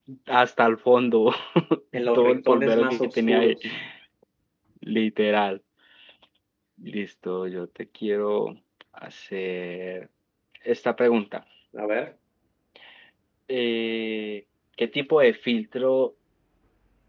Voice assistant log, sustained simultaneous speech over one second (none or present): present